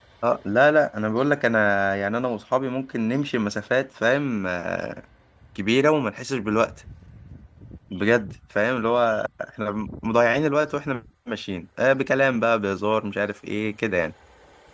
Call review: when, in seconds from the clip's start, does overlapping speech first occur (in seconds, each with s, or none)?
none